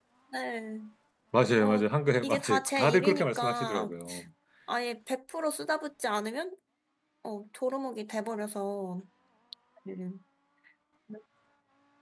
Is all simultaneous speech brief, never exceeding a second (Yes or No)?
No